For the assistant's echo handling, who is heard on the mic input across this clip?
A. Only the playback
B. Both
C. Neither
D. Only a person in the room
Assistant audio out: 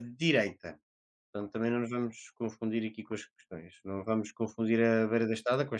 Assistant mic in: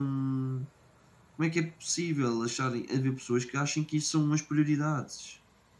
D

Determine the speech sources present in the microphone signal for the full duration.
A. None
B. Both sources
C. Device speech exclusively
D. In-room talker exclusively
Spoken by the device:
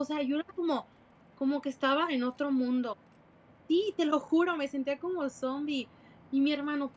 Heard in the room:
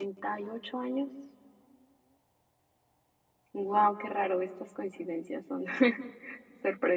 D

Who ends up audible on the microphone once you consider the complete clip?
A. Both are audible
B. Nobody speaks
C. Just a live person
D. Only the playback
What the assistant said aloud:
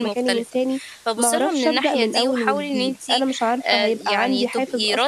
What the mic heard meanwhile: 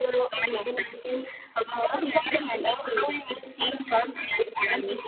D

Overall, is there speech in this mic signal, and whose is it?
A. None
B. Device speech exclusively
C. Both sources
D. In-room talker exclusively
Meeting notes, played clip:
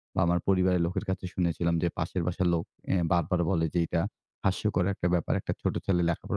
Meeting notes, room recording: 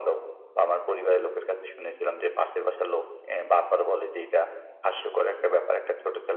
B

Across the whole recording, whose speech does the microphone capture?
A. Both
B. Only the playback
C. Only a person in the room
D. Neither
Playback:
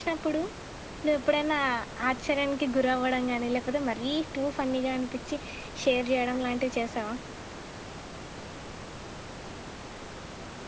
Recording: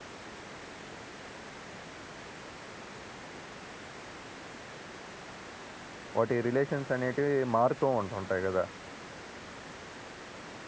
C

